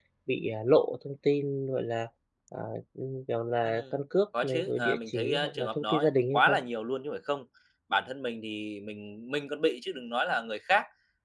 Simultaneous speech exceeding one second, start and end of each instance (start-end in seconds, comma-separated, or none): 4.4-6.6